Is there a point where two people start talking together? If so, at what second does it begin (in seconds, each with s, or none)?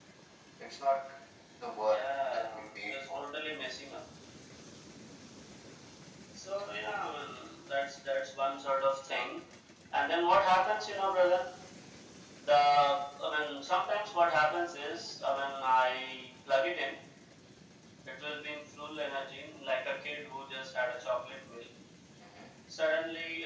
1.8 s